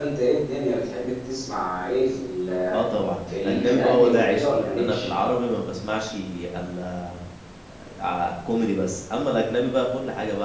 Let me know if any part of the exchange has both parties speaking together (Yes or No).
Yes